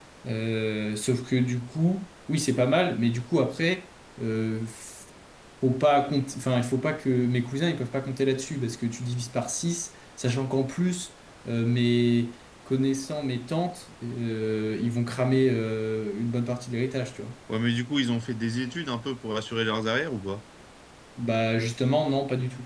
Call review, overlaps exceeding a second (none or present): none